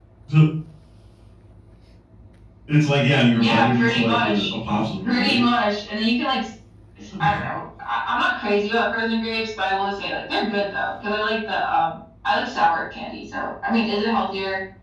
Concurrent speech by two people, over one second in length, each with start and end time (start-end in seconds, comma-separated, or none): 3.3-4.5